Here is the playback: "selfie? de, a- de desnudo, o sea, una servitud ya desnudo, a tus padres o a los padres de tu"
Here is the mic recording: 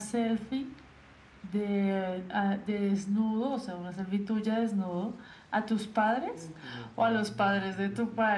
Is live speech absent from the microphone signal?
No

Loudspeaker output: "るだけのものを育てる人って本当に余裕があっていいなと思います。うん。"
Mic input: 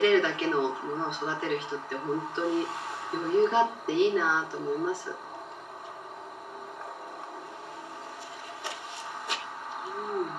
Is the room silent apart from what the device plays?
Yes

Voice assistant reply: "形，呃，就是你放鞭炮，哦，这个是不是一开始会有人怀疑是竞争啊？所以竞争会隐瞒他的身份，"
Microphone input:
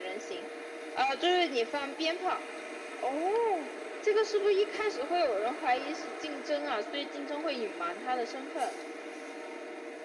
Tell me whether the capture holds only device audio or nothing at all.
Yes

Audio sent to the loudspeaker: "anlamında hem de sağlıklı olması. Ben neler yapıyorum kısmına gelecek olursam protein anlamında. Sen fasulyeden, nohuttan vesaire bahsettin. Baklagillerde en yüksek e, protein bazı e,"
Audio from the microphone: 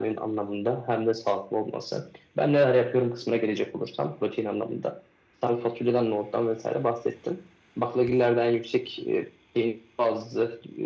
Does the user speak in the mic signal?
No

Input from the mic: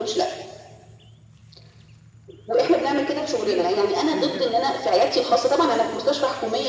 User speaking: Yes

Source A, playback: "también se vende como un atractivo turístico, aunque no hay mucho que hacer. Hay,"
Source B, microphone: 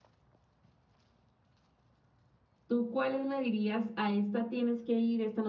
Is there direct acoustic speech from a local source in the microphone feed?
Yes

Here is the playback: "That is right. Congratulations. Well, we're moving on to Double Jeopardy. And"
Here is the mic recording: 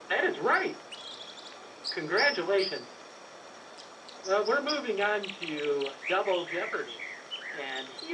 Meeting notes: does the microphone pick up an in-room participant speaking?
No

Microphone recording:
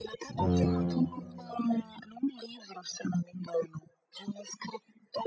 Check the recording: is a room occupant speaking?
Yes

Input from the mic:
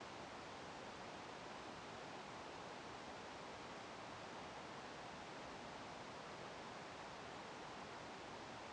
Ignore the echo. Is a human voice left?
No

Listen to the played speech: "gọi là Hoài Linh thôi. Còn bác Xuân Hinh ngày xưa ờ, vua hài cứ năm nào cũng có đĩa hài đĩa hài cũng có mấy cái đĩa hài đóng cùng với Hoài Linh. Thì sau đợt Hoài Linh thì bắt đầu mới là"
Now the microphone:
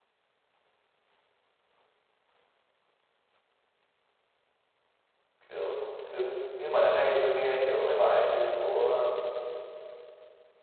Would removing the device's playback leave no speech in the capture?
No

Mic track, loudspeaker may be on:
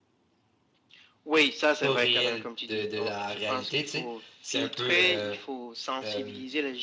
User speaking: Yes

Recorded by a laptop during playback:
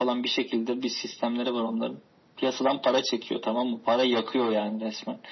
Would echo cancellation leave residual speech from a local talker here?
No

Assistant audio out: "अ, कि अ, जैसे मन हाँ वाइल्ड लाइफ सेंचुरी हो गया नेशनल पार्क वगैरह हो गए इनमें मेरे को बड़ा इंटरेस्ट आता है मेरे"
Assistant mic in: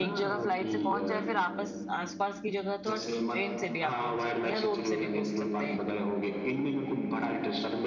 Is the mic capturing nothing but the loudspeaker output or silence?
No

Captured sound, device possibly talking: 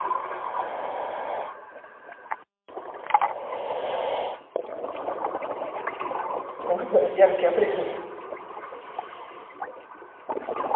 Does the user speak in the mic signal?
Yes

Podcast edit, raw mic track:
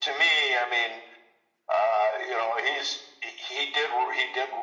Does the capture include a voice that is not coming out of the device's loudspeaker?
No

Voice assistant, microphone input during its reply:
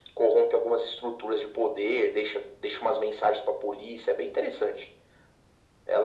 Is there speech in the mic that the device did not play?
No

